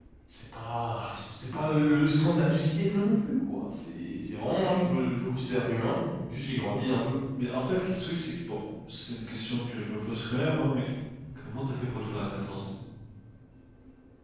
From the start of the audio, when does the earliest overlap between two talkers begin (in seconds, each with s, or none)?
none